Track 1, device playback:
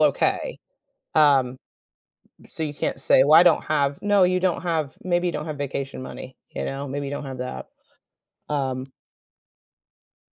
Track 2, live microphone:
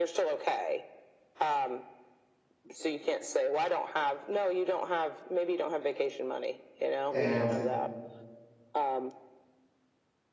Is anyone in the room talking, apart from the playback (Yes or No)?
Yes